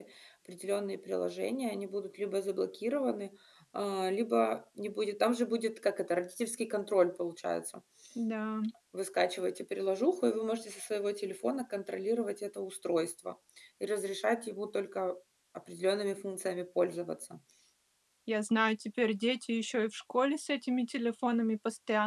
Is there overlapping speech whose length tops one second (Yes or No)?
No